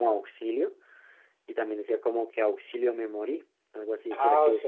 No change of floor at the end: No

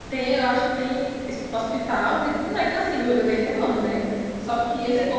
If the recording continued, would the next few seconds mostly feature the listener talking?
No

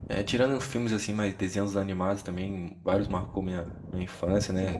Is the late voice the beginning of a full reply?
Yes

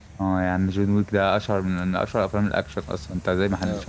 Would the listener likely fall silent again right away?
No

